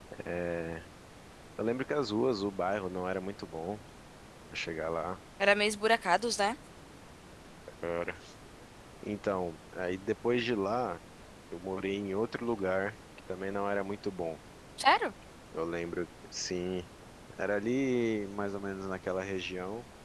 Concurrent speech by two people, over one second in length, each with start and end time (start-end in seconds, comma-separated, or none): none